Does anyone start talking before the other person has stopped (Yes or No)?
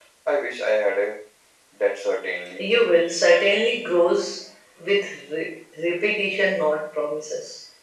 No